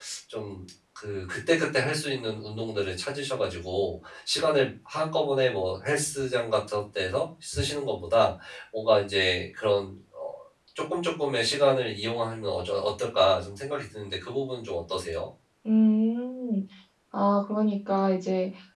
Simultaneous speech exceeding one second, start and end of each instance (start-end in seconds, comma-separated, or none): none